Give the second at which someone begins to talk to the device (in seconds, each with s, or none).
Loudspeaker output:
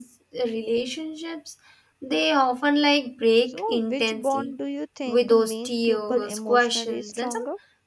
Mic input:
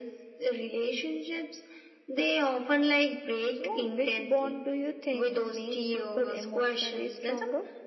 none